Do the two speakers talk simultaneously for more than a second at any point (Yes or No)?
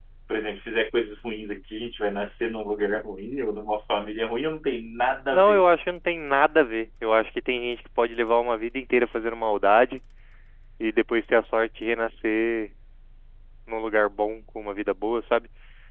No